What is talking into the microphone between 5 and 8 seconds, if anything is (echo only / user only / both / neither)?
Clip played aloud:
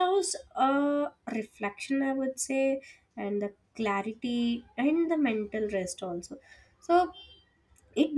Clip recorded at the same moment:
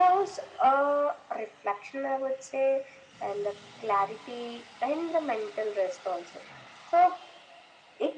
echo only